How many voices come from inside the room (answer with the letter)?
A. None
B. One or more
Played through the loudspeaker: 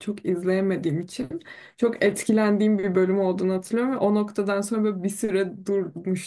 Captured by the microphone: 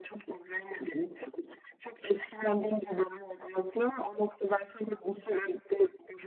A